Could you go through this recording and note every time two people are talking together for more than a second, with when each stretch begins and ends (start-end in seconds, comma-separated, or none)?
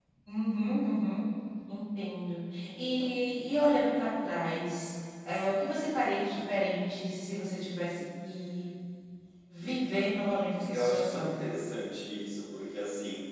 9.6-11.3